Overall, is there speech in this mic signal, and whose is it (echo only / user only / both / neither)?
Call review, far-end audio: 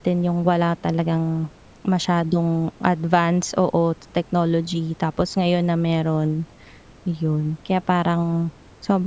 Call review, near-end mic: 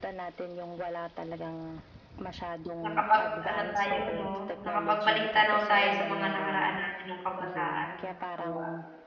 both